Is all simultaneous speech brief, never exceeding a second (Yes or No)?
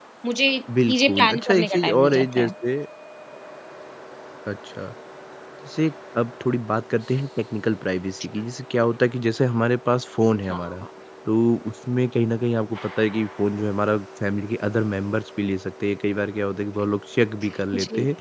No